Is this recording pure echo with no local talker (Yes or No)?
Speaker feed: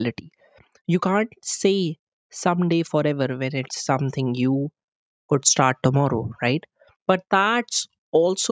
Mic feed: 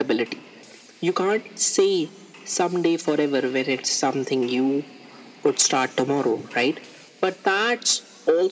Yes